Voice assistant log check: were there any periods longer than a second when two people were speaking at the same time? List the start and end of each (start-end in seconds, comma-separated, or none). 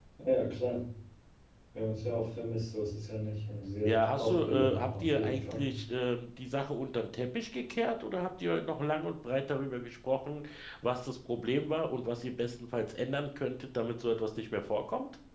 3.9-5.7